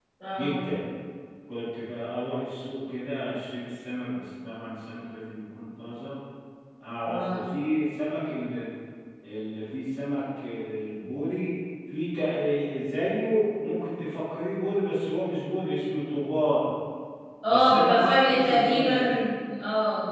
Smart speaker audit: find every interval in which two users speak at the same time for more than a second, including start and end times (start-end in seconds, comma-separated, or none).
17.5-19.0